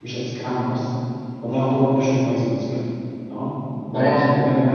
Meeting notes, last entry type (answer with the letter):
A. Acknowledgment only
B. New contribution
A